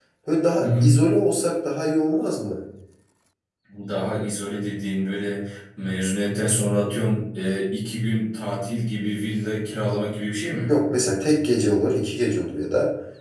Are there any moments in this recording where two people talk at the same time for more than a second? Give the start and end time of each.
none

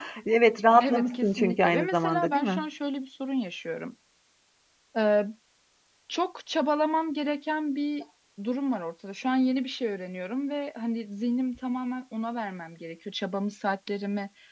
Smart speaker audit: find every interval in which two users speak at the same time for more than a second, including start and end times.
0.8-2.6

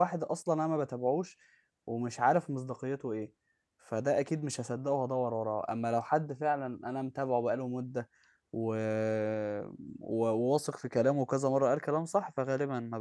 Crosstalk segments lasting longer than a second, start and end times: none

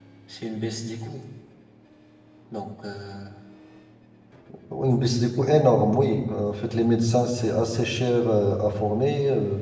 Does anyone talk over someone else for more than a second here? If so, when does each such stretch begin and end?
none

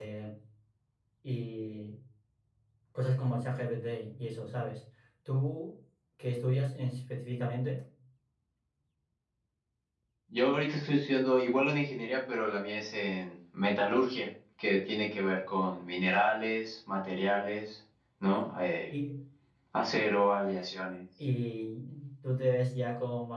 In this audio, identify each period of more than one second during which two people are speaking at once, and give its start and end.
none

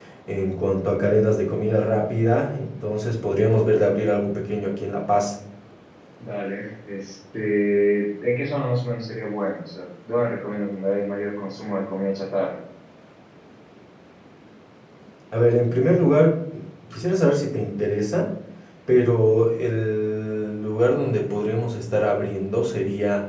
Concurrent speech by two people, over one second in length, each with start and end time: none

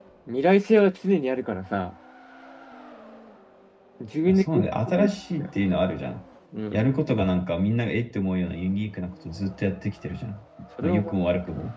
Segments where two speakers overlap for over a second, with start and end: 4.2-5.5

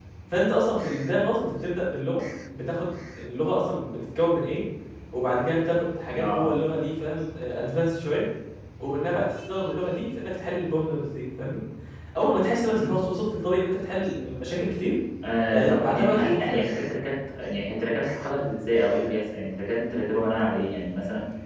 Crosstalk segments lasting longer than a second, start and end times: 15.5-16.9

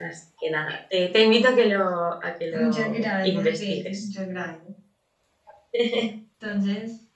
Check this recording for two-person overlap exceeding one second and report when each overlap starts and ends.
2.5-4.0

